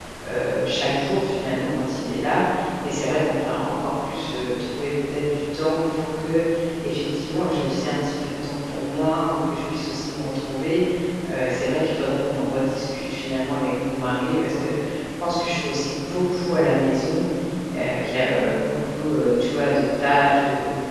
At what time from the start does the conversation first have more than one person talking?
none

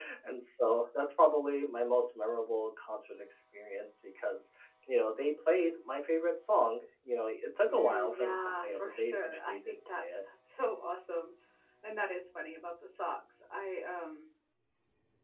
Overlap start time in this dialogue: 7.7 s

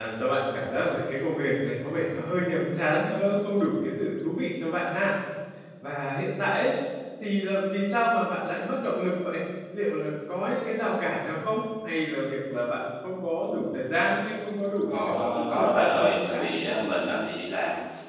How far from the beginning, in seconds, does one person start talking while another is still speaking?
14.8 s

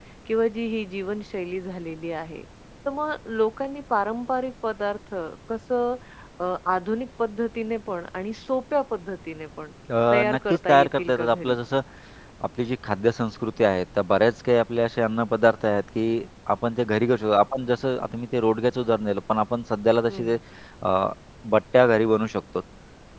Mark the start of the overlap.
10.1 s

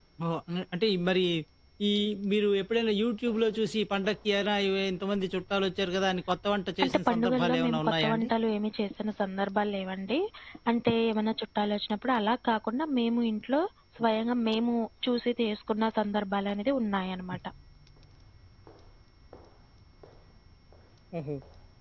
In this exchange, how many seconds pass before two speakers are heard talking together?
6.8 s

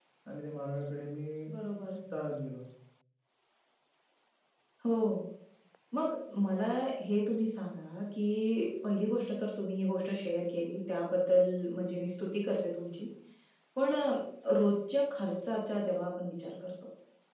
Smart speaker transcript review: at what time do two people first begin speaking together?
none

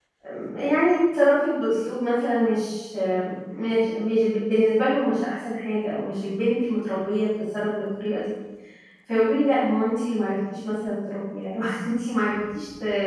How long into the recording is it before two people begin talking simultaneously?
none

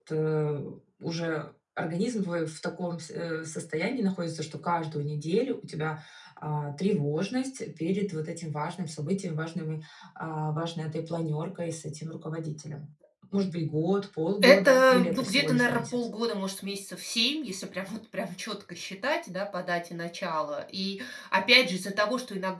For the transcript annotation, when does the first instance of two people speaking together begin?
14.4 s

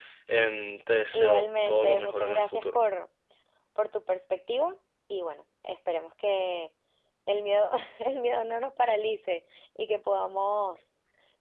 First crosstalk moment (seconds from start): 1.1 s

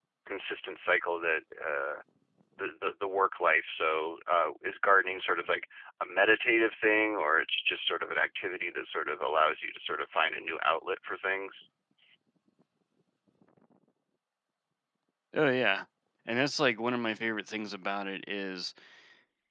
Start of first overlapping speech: none

